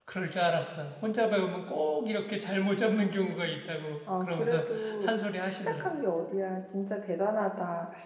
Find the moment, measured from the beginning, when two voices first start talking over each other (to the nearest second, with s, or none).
4 s